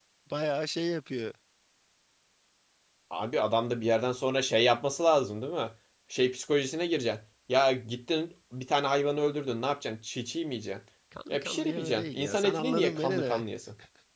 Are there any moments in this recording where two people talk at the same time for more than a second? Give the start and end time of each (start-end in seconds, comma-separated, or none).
11.3-13.4